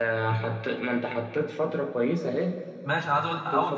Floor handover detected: Yes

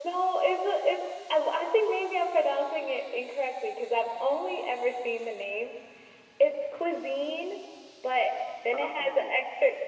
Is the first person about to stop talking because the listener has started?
No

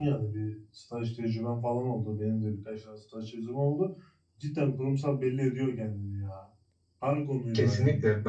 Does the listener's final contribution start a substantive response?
Yes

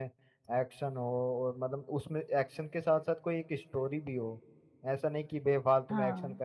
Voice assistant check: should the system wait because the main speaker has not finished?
Yes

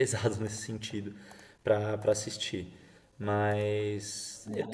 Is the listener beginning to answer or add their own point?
Yes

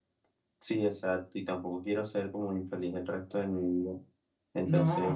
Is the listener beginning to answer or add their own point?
Yes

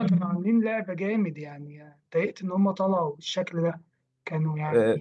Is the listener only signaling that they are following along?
No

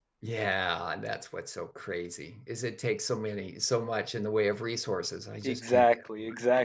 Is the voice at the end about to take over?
Yes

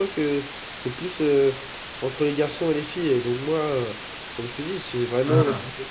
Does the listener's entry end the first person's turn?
No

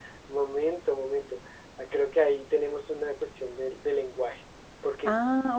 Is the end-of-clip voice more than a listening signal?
Yes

